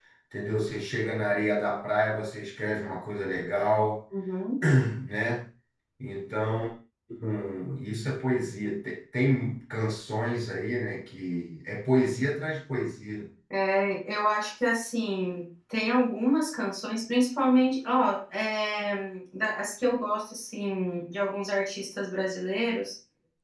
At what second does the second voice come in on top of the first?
none

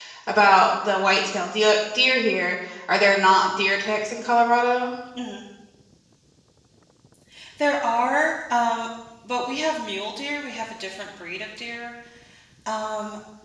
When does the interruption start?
none

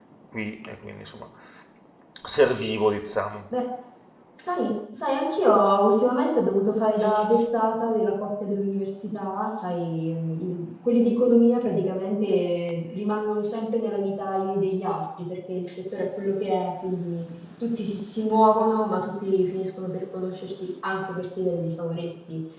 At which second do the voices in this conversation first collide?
none

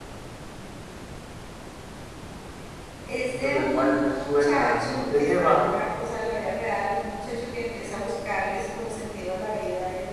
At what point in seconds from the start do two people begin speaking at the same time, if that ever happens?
3.2 s

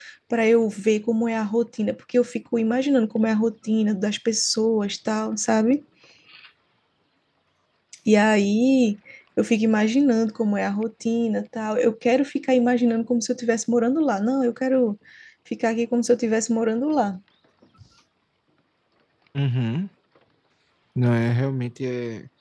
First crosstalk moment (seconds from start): none

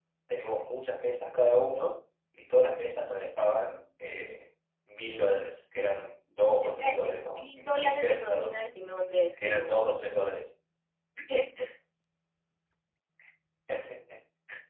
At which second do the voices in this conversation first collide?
6.6 s

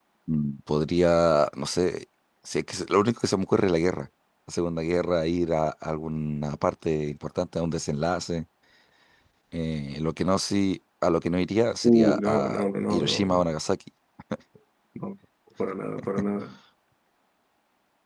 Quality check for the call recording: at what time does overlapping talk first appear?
11.8 s

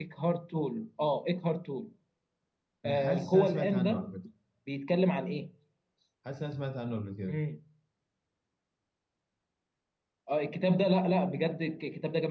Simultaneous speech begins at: 2.9 s

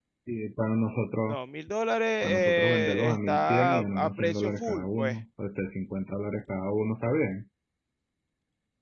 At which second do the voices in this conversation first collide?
2.2 s

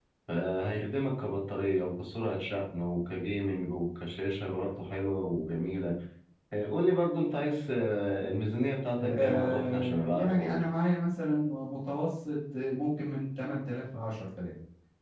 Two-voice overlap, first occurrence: 9.0 s

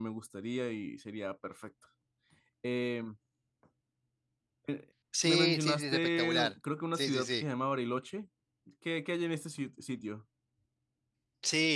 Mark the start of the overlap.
5.2 s

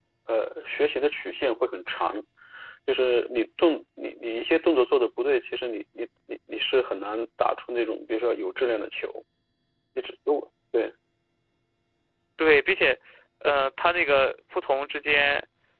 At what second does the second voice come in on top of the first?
none

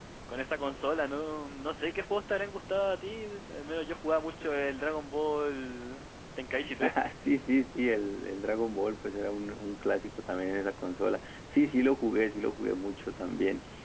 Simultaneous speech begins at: none

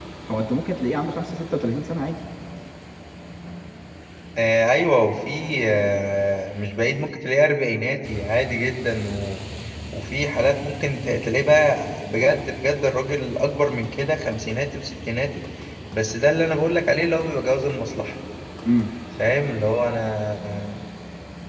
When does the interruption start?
none

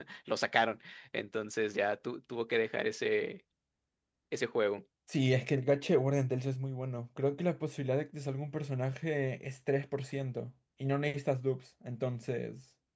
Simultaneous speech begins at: none

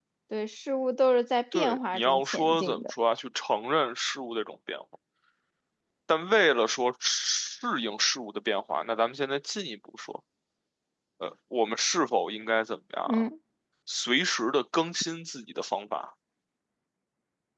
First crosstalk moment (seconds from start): 1.5 s

